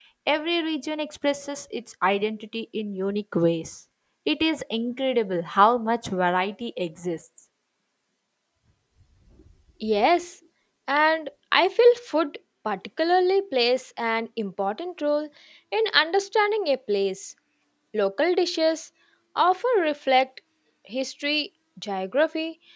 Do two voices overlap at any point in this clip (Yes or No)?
No